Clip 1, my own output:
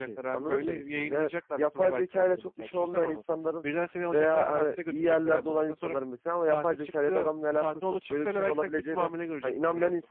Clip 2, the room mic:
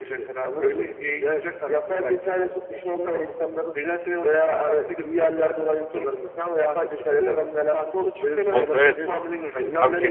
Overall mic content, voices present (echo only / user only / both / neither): both